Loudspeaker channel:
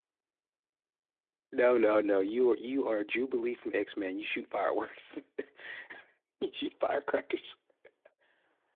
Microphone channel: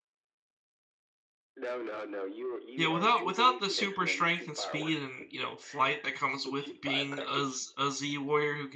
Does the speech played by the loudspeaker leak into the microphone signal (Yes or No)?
Yes